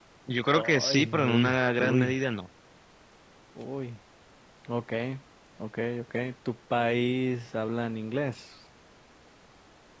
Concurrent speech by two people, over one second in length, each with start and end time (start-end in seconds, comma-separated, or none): 0.6-2.0